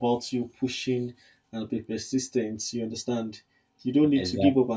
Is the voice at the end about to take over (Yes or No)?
No